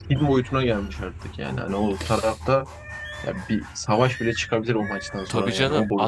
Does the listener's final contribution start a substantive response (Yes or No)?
Yes